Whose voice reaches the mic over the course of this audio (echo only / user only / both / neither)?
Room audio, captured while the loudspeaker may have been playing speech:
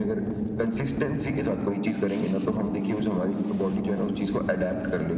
echo only